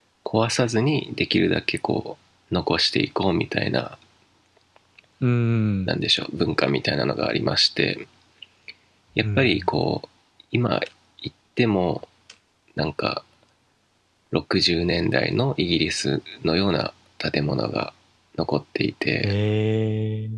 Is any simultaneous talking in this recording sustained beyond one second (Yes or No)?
No